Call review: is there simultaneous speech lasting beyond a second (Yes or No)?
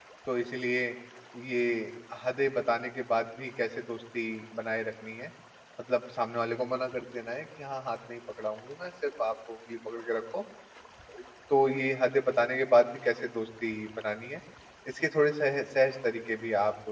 No